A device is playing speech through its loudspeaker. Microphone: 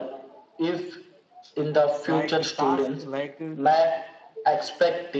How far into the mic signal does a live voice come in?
2 s

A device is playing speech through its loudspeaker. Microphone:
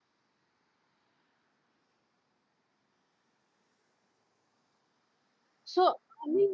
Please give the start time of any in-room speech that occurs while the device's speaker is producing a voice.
6 s

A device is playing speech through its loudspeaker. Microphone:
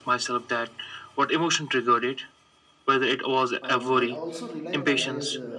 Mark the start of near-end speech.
4 s

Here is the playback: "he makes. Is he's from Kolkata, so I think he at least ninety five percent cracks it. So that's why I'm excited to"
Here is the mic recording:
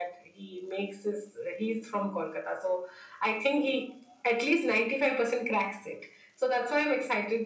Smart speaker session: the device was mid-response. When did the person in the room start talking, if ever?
none

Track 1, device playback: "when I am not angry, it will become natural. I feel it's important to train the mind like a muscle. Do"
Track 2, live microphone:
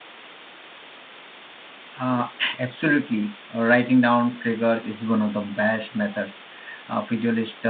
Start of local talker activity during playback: 2 s

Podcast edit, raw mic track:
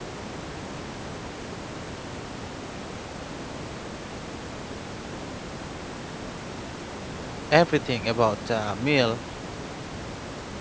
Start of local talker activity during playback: 8 s

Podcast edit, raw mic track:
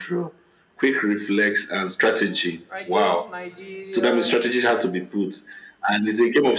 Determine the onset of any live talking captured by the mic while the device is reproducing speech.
3 s

